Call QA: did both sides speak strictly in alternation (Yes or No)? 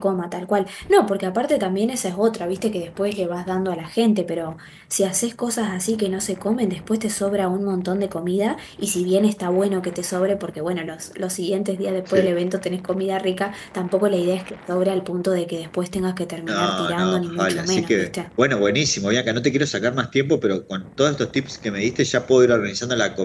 No